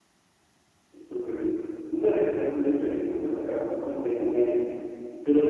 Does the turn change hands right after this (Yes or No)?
No